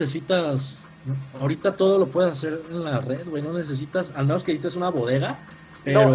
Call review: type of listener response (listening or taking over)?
taking over